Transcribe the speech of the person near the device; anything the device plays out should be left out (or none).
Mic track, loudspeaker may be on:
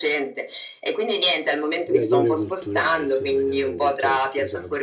Mediatore culturale, sì, mediatore culturale, scusa.